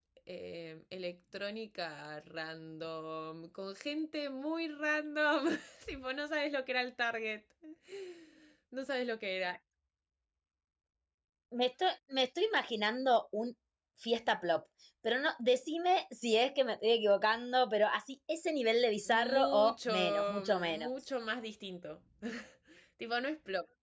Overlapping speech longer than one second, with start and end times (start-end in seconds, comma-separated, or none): 19.1-20.9